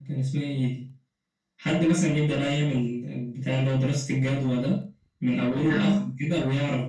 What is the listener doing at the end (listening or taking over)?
listening